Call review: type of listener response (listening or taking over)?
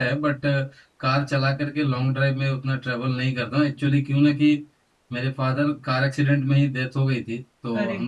listening